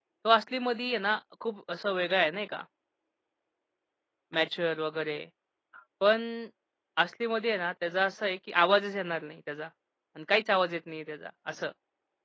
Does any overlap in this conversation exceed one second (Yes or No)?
No